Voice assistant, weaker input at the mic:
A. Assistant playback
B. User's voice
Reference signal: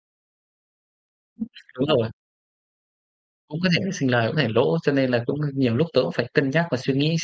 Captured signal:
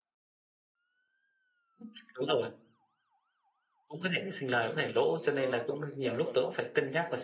B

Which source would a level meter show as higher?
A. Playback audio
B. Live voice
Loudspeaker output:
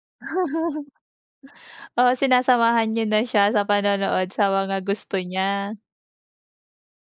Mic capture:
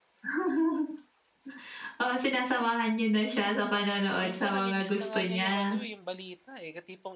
A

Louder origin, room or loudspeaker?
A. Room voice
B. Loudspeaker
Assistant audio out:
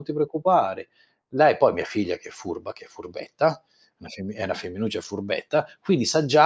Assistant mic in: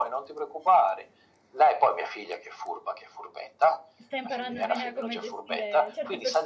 B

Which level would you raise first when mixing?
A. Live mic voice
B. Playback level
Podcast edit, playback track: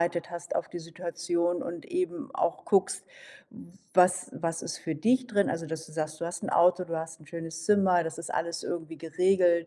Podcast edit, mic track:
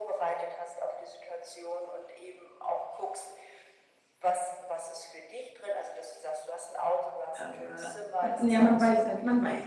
B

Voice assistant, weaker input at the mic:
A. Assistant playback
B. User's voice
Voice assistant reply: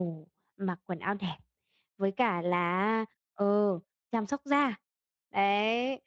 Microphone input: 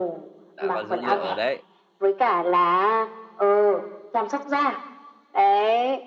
B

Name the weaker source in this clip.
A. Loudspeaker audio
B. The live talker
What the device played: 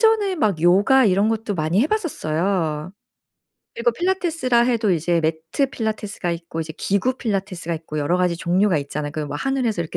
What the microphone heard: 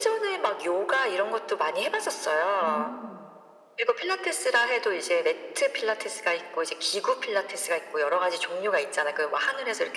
B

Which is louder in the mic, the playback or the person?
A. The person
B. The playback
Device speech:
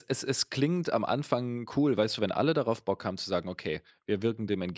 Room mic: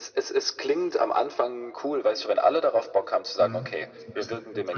B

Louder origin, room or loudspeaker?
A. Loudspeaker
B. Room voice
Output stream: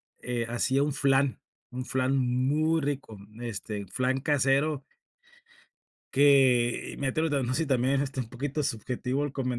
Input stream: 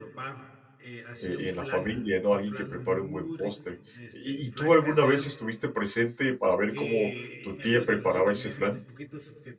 B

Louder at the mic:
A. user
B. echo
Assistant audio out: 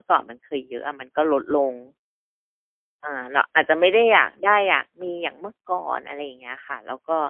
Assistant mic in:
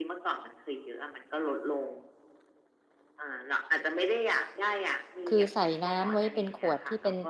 A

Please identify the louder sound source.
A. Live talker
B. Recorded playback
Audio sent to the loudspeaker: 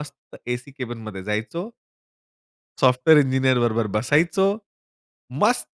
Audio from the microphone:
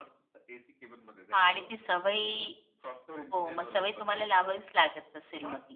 A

